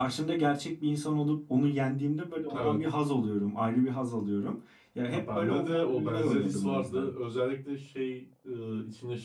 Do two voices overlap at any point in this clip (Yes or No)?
Yes